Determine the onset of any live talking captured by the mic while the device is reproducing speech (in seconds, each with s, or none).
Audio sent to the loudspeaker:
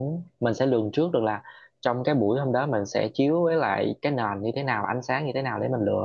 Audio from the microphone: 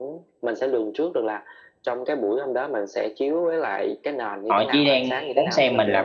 4.5 s